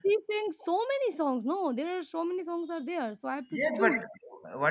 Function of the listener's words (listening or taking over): taking over